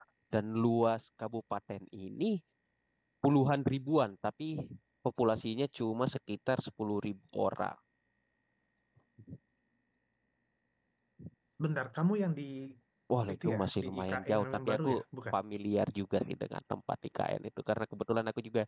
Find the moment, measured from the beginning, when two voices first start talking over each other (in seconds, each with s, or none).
13.3 s